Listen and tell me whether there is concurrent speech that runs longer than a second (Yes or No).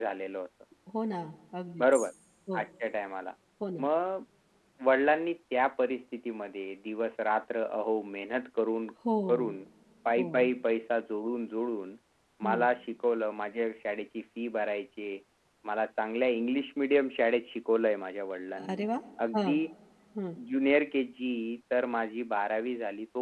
No